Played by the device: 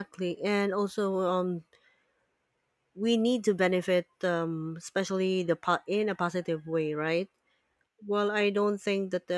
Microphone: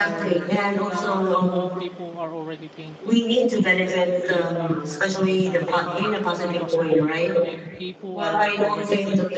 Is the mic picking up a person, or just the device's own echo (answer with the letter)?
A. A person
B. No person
A